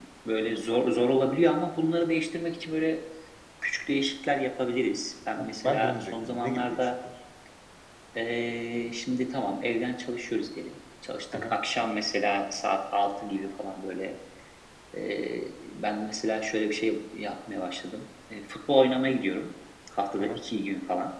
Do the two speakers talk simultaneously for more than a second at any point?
Yes, from 5.6 s

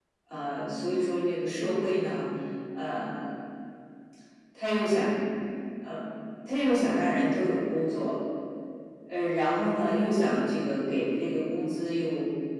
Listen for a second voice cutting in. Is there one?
No

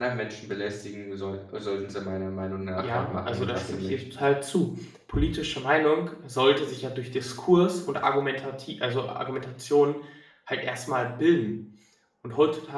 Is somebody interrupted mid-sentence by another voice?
Yes, from 2.8 s

